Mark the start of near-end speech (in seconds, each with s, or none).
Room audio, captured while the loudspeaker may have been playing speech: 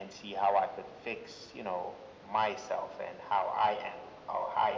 none